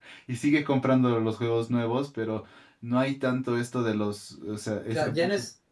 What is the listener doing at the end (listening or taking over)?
taking over